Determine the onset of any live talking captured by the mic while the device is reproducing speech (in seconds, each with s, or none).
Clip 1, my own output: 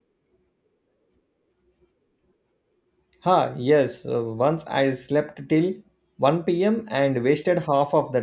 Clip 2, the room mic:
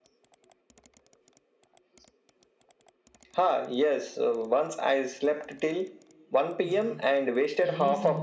6.6 s